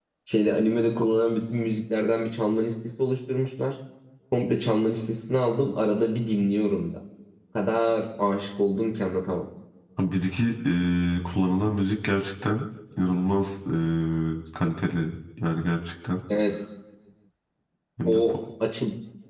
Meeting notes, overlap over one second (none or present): none